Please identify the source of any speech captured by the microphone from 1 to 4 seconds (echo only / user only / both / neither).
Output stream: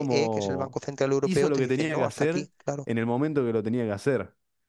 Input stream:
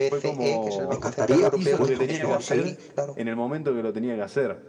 both